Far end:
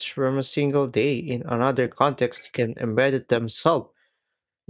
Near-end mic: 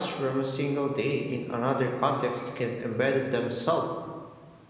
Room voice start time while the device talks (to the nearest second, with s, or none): none